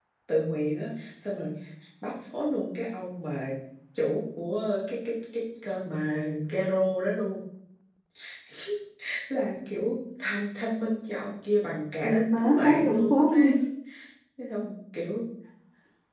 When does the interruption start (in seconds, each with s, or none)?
12.0 s